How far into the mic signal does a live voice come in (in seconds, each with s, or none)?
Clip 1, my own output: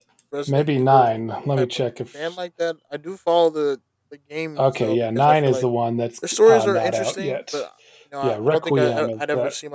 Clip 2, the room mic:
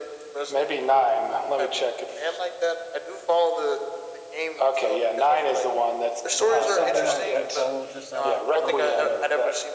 6.4 s